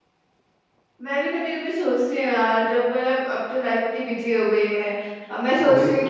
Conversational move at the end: listening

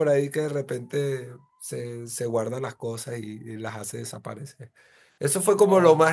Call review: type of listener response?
listening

